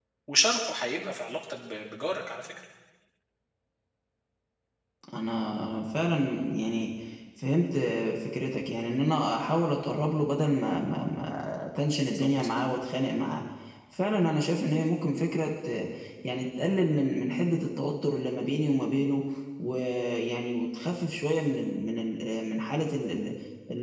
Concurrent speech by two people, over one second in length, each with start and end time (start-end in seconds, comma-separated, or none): none